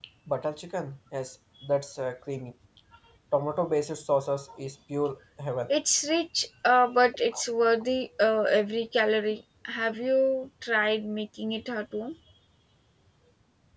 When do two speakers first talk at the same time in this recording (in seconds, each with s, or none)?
none